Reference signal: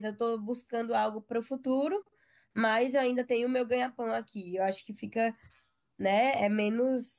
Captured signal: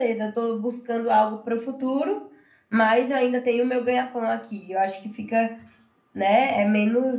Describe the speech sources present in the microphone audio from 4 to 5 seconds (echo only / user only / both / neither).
echo only